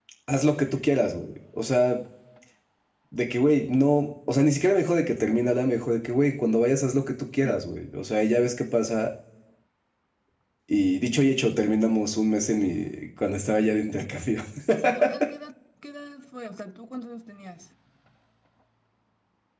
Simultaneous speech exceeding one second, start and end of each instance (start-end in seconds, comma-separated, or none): none